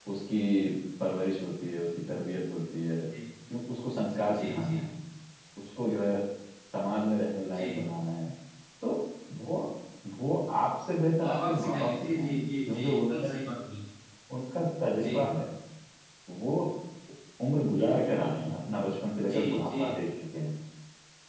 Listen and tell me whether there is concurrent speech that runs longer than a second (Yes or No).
Yes